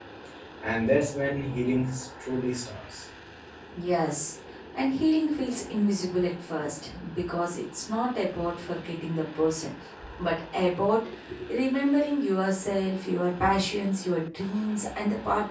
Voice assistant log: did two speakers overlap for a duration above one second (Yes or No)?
No